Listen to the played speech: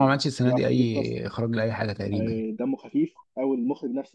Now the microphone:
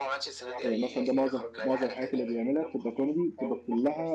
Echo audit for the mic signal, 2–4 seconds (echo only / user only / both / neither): both